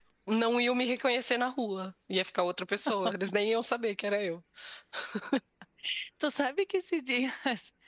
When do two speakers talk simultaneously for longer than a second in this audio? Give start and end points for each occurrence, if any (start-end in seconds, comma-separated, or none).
none